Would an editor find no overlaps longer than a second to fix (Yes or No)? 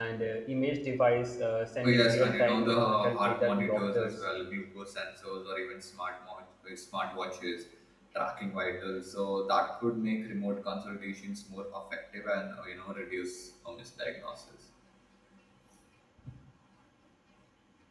No